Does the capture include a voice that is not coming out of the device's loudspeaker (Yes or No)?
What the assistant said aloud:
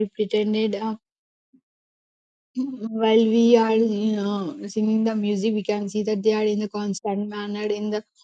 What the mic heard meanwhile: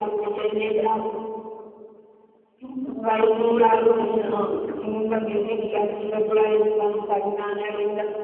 No